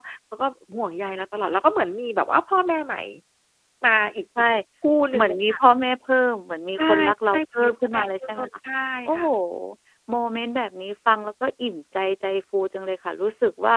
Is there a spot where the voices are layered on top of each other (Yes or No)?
Yes